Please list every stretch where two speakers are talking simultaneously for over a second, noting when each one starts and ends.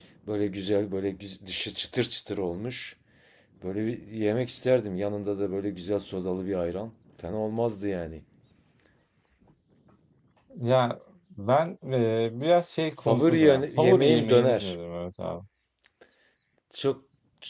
13.0-14.7

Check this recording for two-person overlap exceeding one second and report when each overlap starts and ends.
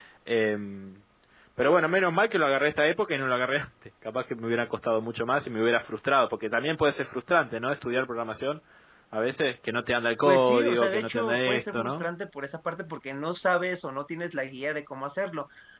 10.2-12.1

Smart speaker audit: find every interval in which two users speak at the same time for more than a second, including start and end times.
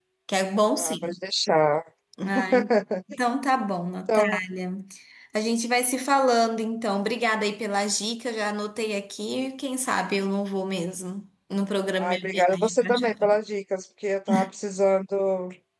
12.0-13.4

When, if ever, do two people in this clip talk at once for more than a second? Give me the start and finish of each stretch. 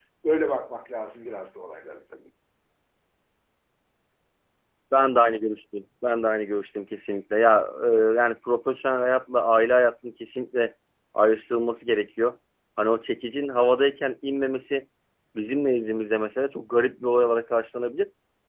none

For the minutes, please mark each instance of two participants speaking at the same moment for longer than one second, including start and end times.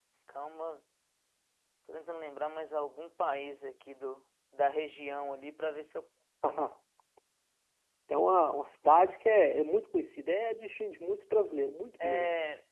none

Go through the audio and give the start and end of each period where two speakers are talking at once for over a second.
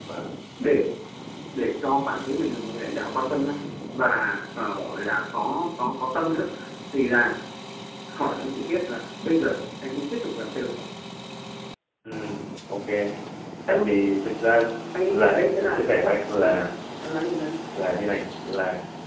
15.1-16.7

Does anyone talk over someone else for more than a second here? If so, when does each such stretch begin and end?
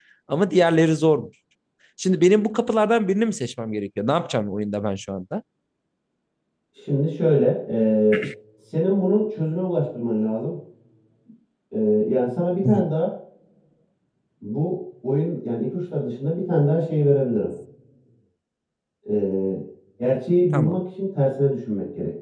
none

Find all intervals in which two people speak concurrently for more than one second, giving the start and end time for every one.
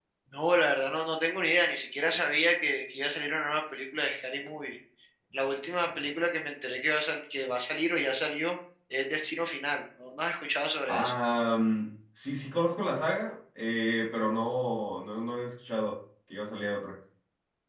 none

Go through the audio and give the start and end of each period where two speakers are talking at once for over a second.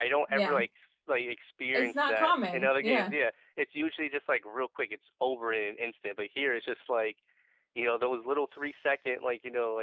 1.7-3.1

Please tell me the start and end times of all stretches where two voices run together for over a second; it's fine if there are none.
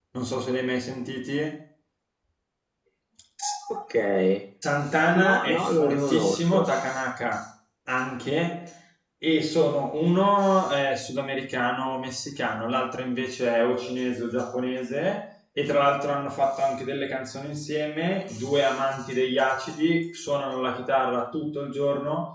5.2-6.7

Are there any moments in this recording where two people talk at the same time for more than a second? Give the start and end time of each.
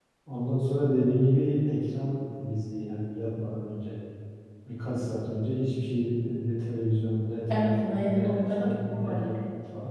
7.5-9.2

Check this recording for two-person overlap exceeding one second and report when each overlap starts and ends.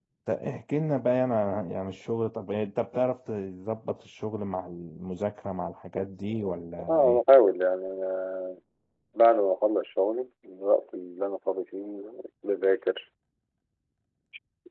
none

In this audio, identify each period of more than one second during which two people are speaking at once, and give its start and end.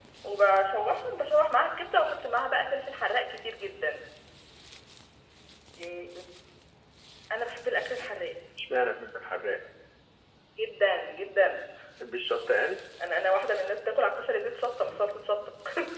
none

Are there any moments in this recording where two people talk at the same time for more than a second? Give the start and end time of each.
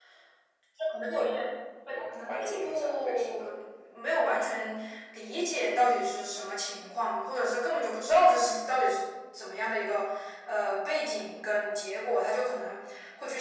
2.1-3.5

